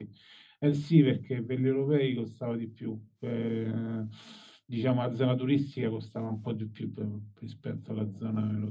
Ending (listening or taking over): listening